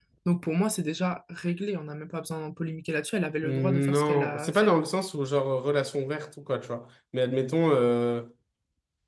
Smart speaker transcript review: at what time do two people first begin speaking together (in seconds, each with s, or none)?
3.4 s